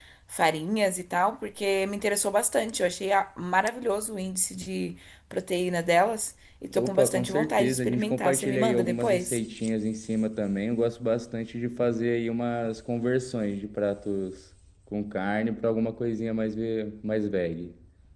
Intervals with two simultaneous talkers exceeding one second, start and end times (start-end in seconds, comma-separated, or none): 6.7-9.4